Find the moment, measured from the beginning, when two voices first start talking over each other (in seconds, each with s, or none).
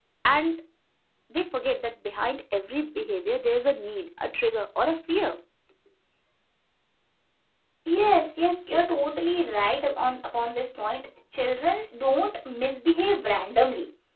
none